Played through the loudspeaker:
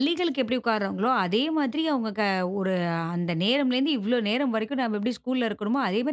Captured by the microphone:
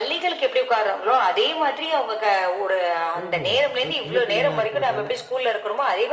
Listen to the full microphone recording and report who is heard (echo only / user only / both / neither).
both